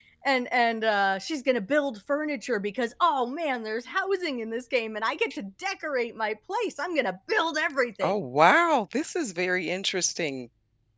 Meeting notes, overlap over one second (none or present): none